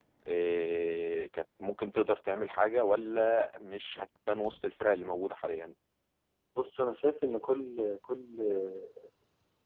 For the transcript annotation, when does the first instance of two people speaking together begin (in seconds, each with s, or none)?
none